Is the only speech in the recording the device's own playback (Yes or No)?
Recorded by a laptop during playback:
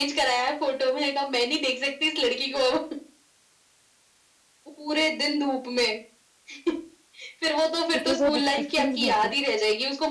No